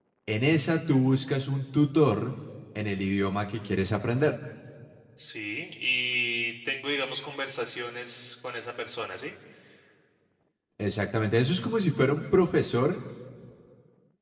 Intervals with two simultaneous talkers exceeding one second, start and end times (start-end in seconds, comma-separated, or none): none